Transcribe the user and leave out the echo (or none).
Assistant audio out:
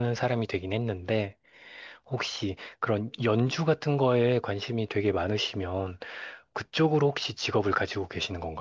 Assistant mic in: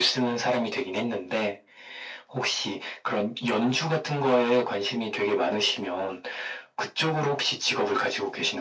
none